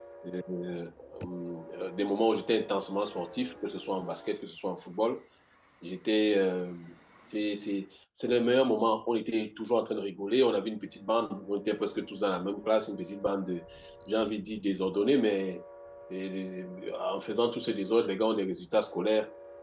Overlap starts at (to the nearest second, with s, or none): none